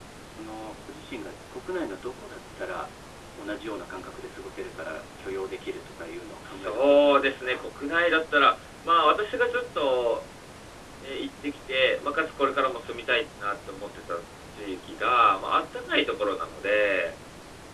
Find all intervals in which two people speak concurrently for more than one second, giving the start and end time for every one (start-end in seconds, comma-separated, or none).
6.4-7.7